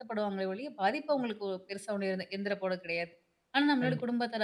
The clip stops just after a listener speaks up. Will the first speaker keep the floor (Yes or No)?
Yes